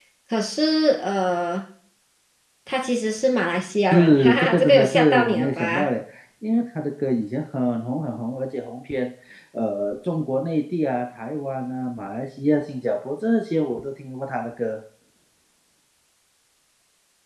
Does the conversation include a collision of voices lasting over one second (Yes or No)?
Yes